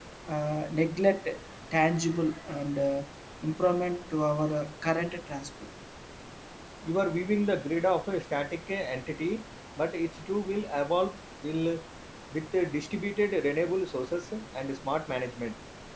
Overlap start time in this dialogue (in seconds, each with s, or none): none